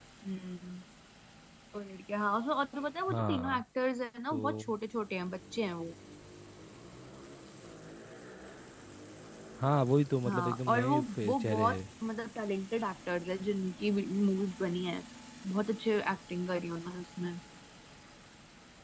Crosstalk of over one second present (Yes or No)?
Yes